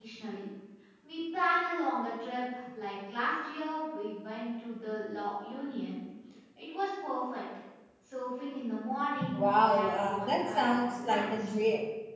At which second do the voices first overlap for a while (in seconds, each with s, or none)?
9.2 s